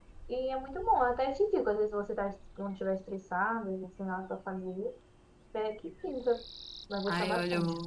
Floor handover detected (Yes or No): Yes